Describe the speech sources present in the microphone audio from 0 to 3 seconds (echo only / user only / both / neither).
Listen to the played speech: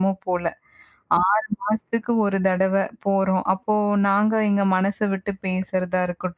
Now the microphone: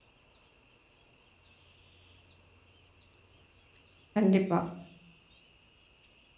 neither